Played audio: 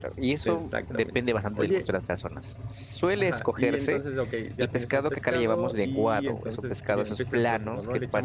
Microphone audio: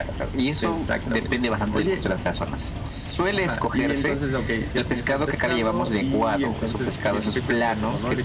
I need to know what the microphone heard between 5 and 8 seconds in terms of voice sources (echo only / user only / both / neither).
echo only